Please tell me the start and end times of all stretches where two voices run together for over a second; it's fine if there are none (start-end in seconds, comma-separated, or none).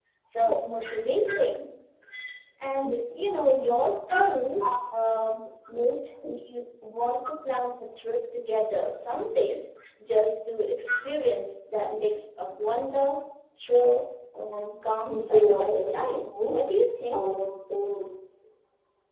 15.1-16.6